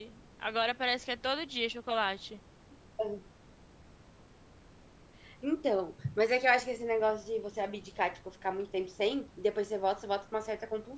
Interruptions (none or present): none